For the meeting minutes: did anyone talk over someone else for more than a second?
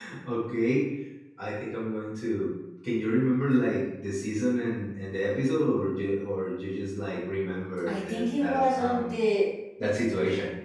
Yes, from 7.9 s

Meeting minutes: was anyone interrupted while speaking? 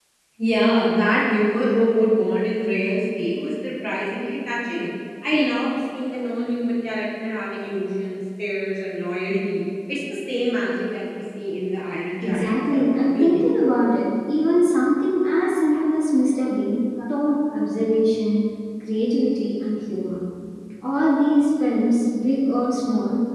Yes, from 12.2 s

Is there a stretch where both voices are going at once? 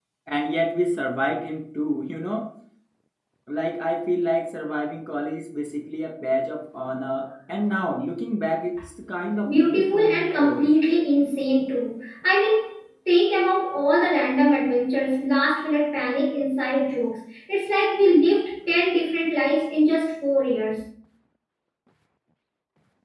Yes, from 9.4 s

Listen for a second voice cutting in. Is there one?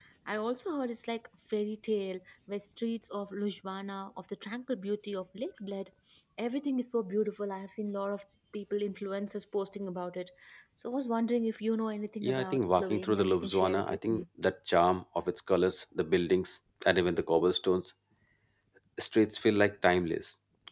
Yes, from 12.2 s

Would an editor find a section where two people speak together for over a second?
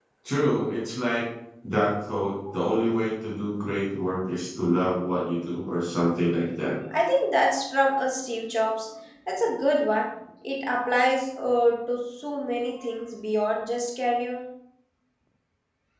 No

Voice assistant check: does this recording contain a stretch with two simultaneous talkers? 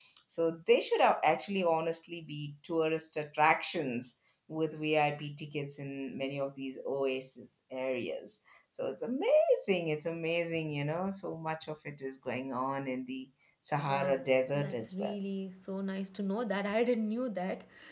Yes, from 13.8 s

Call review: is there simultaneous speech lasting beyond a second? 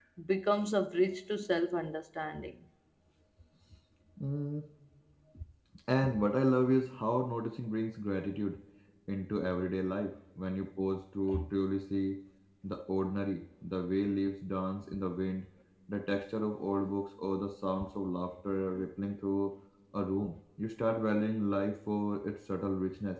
No

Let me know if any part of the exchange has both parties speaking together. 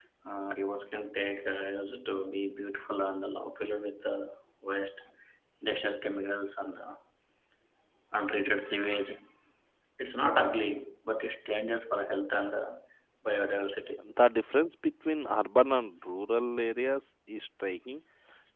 No

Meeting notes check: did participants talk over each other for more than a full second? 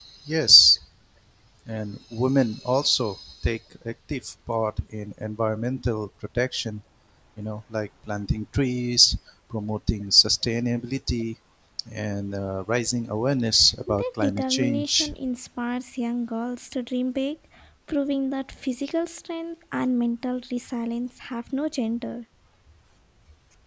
Yes, from 13.9 s

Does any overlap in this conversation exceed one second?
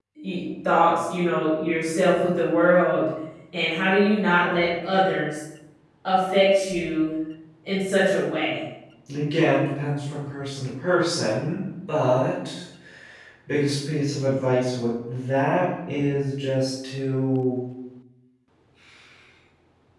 No

